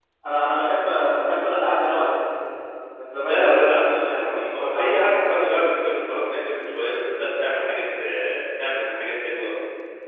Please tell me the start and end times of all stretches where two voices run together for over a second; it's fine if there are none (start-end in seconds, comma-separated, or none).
3.3-5.7